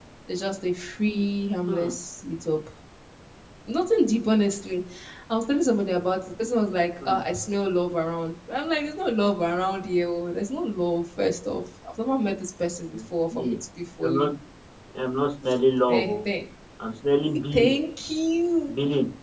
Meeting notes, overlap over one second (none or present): none